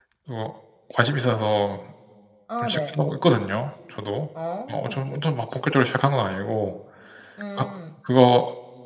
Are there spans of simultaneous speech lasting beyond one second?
No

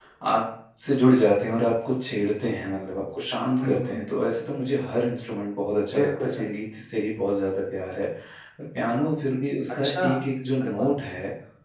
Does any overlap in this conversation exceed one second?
No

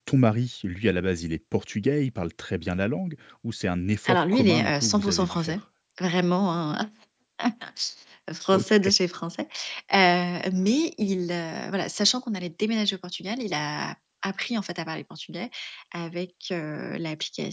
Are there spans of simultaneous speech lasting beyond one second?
Yes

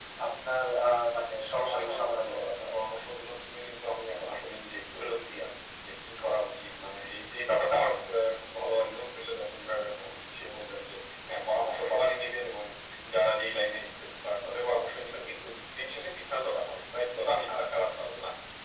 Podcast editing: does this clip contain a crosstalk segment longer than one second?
Yes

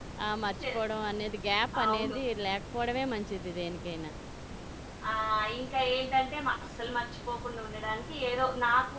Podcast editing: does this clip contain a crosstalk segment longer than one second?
No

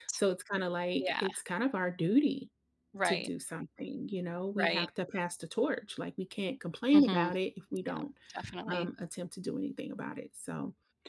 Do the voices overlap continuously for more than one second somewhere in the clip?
No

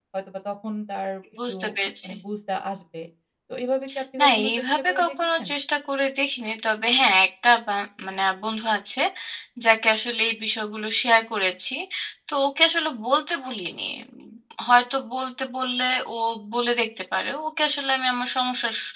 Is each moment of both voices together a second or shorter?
No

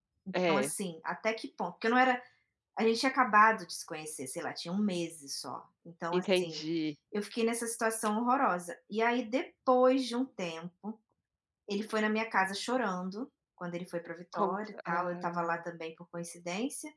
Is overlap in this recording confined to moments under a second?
No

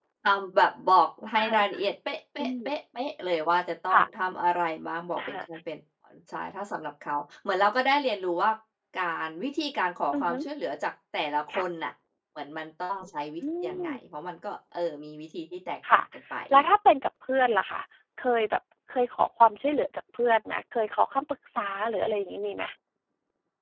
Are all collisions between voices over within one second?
Yes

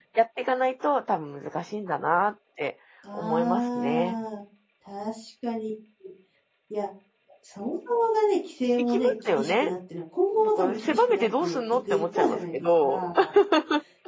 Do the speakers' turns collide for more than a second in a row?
Yes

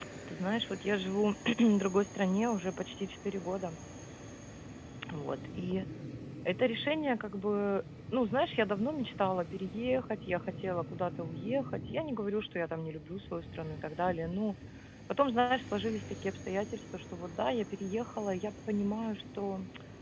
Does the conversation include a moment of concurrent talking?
No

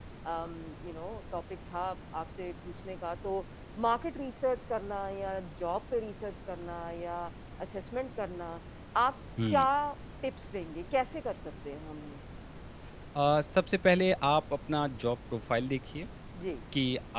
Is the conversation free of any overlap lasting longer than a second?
Yes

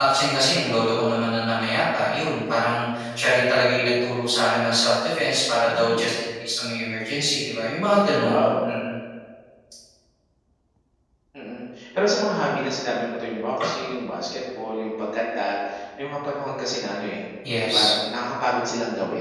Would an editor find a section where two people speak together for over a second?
No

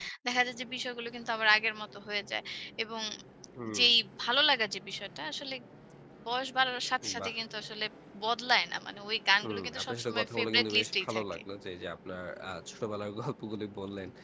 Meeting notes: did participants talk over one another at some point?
Yes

